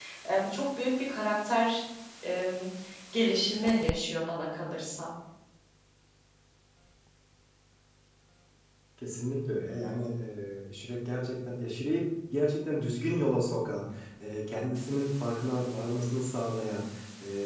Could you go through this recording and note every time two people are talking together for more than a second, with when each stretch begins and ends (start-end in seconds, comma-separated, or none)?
none